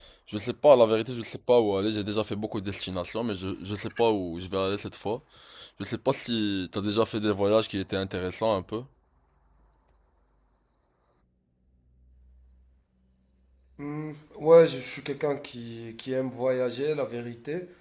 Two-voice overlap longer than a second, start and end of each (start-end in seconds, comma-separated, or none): none